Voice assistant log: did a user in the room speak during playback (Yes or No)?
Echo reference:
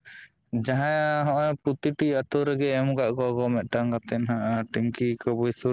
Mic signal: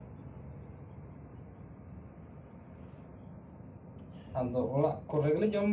Yes